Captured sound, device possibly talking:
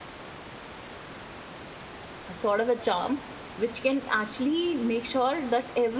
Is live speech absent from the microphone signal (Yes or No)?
No